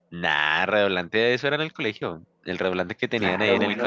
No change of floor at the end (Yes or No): No